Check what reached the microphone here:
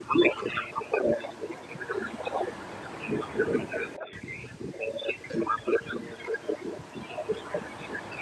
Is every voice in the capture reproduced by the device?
Yes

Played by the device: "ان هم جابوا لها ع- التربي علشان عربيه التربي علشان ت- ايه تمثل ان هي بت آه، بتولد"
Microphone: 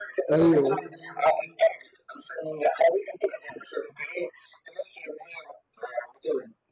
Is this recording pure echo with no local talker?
No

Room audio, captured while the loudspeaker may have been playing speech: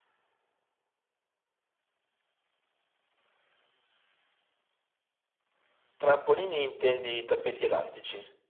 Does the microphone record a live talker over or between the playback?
Yes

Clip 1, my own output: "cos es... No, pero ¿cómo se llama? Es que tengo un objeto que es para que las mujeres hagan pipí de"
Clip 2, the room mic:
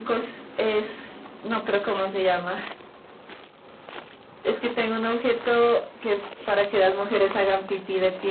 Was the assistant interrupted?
No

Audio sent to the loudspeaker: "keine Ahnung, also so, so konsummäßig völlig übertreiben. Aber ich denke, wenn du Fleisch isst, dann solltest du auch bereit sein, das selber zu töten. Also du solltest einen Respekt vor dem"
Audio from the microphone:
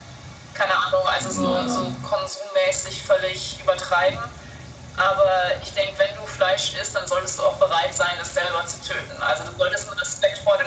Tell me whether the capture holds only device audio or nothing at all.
No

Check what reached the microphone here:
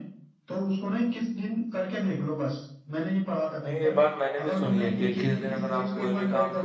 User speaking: Yes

